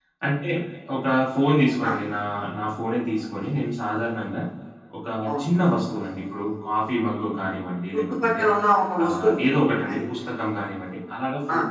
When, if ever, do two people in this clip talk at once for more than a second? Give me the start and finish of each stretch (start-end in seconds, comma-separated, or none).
none